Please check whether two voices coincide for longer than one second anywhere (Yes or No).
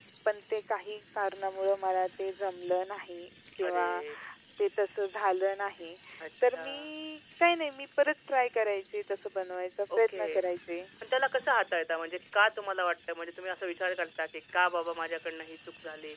No